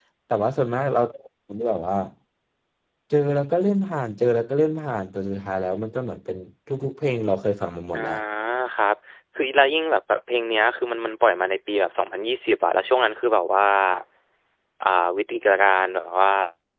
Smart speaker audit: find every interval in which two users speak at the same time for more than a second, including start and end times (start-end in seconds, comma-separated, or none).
none